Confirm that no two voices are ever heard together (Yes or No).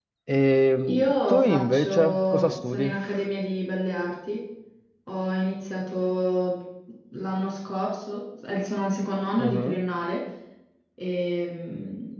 No